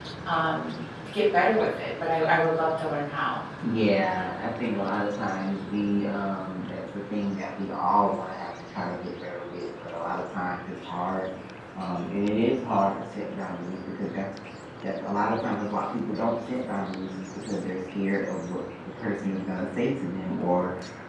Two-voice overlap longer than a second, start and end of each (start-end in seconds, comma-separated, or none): none